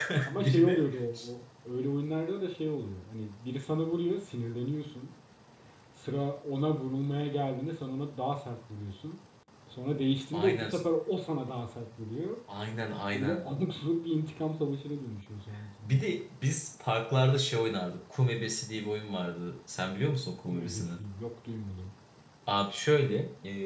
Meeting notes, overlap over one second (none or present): none